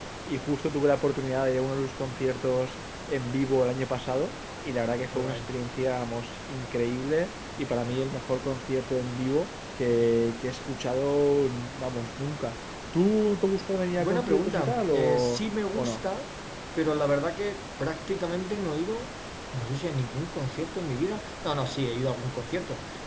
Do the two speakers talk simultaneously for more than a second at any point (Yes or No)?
Yes